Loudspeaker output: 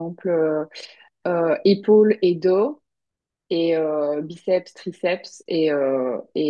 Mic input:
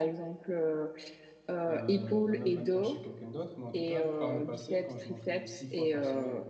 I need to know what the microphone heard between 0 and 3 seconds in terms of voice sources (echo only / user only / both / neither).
both